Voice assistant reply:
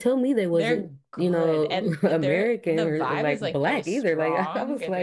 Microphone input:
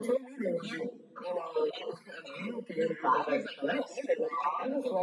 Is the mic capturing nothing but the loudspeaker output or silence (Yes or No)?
Yes